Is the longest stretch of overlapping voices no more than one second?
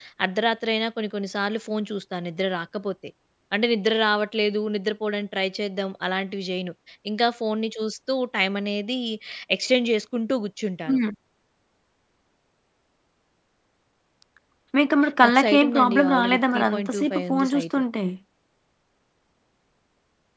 No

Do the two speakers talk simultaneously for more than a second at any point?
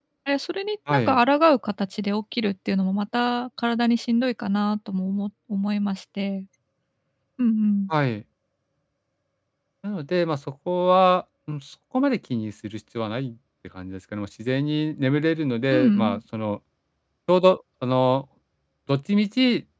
No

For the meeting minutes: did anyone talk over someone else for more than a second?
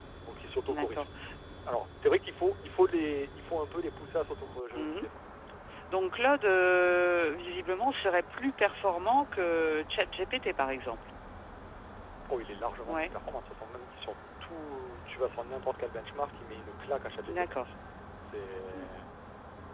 No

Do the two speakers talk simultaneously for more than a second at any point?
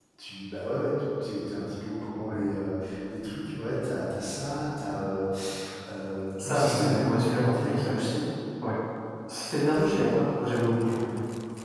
Yes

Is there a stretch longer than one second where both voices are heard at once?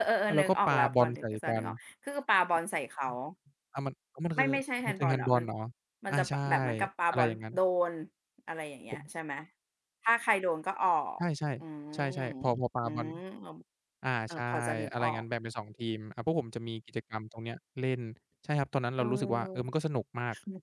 Yes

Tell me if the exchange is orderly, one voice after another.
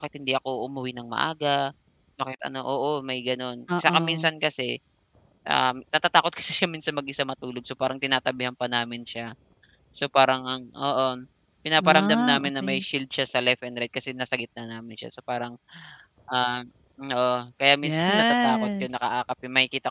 No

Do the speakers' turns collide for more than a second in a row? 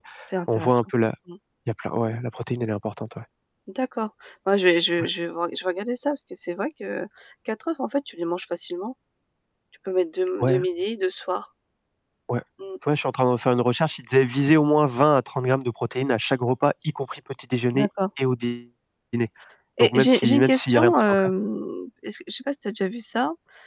Yes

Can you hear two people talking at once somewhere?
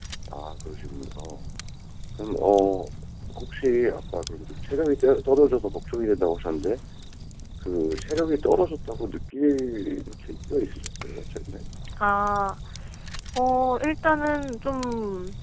No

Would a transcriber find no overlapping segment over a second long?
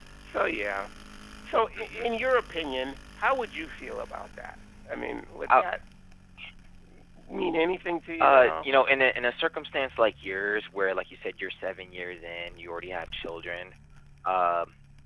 Yes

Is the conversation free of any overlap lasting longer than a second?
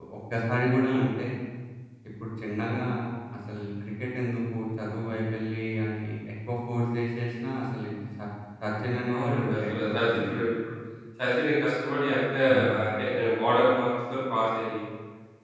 No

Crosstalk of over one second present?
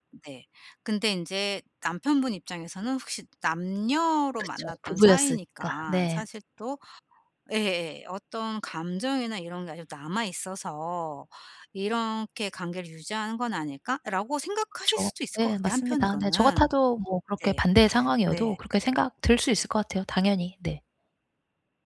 Yes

